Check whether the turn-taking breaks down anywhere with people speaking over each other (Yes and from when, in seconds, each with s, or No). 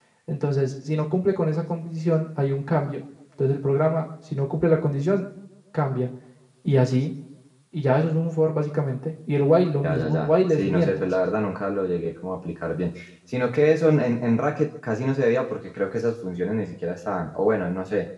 Yes, from 9.8 s